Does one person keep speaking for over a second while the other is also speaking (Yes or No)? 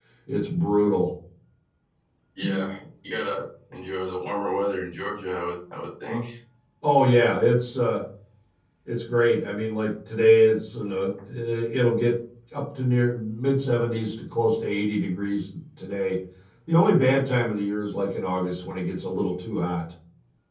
No